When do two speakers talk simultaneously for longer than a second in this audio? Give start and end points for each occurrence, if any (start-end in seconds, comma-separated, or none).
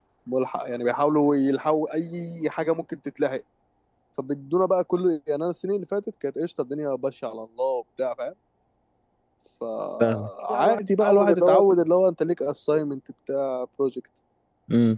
10.0-11.6